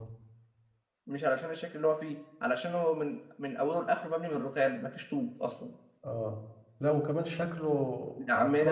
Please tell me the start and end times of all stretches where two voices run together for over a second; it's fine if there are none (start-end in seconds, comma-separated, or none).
none